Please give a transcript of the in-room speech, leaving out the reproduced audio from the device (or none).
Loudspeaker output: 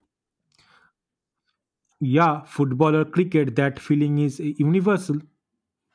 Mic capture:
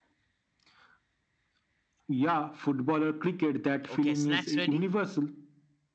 Okay, snacks ready?